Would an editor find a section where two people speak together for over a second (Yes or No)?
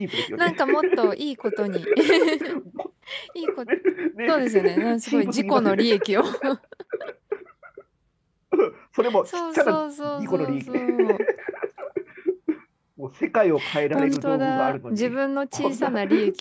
Yes